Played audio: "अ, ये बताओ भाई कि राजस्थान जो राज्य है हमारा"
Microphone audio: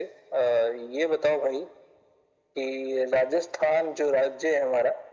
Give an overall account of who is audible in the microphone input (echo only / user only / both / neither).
echo only